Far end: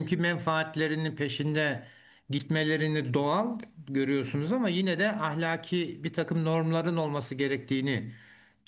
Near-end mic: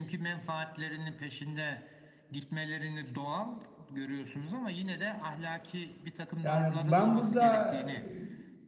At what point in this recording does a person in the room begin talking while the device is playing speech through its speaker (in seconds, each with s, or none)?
6.4 s